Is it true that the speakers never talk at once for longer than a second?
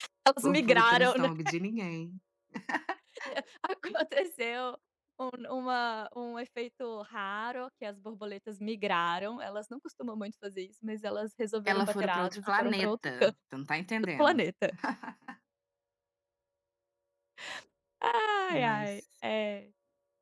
No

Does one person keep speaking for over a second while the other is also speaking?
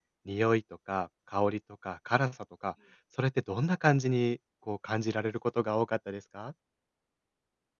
No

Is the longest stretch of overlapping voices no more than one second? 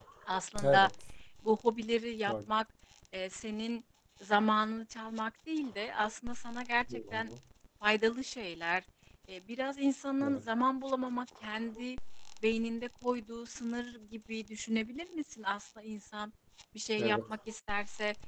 Yes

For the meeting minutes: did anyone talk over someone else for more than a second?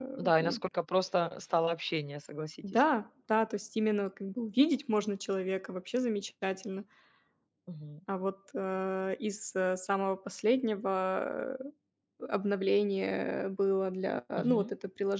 No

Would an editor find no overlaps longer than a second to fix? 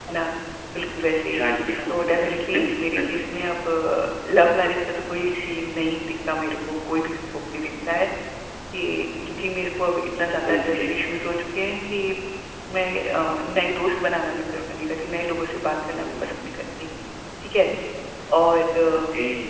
No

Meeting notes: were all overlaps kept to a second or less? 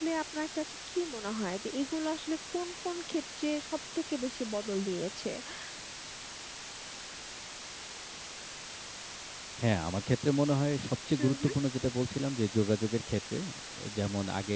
Yes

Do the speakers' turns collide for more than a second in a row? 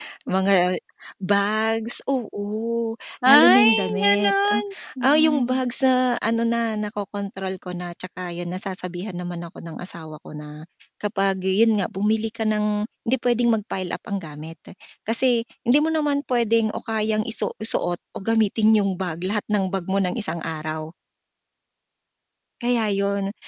Yes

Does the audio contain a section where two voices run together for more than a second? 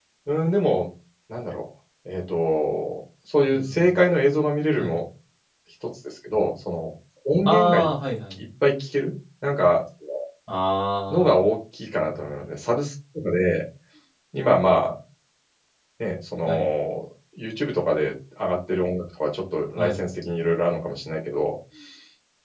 No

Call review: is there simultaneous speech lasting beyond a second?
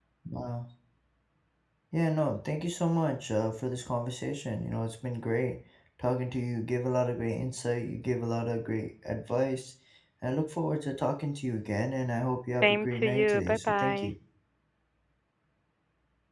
Yes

